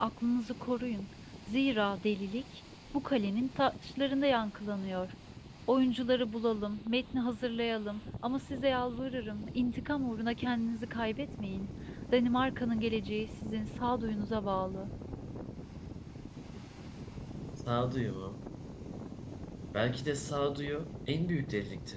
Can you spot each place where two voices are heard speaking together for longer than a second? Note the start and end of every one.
none

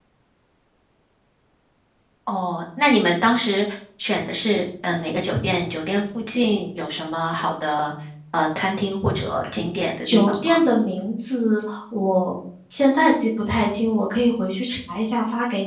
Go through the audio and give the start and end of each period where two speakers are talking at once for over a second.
none

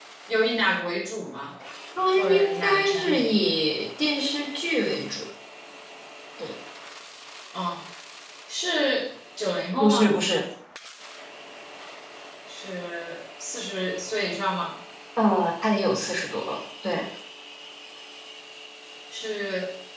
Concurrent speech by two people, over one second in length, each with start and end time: 2.2-3.4

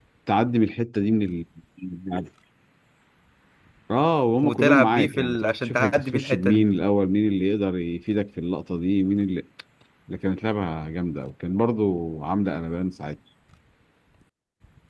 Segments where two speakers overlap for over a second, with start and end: 4.4-6.6

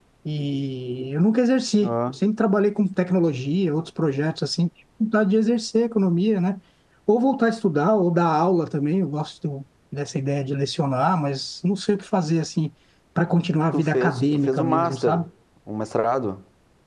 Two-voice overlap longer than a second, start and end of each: 13.7-15.2

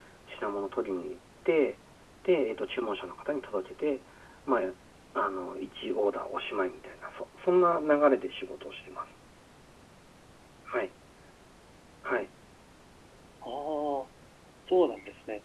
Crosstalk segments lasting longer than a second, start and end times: none

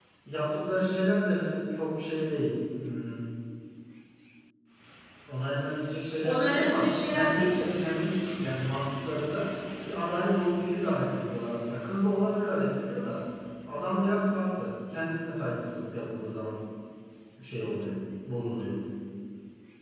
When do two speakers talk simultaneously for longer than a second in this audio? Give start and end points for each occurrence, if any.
6.2-8.0

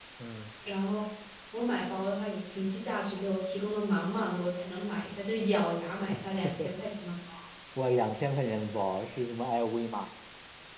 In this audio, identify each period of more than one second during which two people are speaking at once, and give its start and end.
none

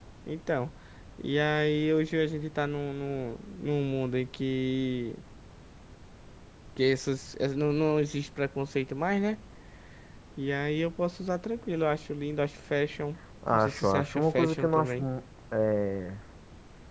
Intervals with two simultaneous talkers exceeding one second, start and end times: 13.5-15.1

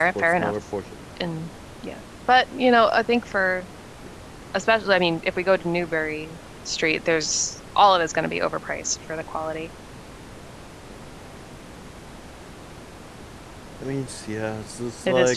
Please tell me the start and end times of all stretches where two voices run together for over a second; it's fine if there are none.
none

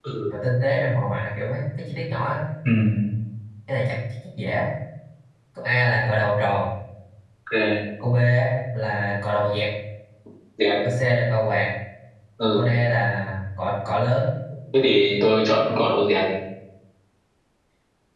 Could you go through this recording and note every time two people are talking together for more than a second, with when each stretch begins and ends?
none

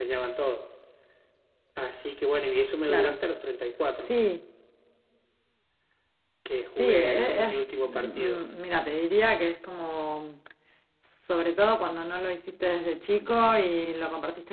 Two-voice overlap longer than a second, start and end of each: 6.7-8.5

